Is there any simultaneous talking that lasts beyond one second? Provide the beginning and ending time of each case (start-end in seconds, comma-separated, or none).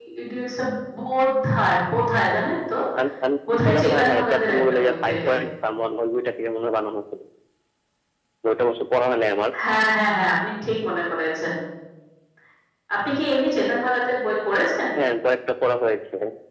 3.6-5.3